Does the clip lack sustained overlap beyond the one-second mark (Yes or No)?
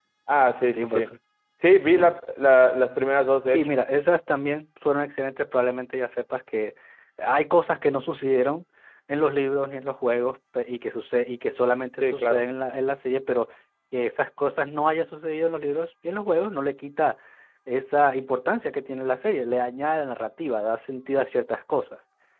Yes